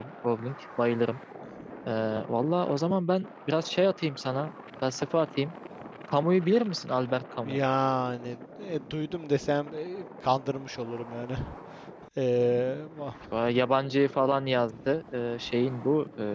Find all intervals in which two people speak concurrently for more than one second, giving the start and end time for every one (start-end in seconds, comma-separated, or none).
none